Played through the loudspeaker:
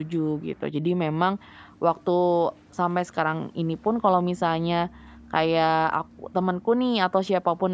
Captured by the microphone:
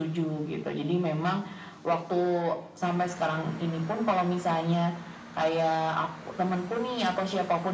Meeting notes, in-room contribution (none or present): none